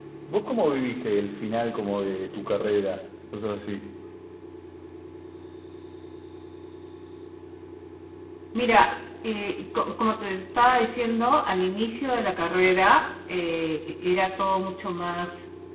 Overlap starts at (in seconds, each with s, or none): none